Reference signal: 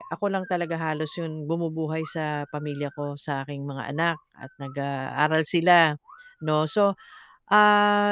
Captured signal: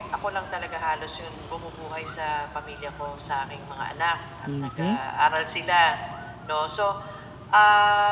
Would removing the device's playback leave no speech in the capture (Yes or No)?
No